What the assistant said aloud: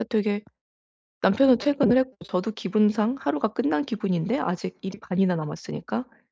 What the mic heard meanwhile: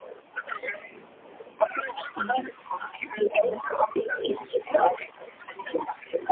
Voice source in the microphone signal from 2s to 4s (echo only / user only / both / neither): both